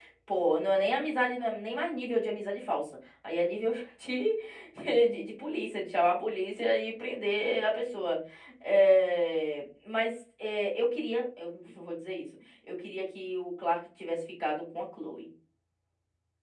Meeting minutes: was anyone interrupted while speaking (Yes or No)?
No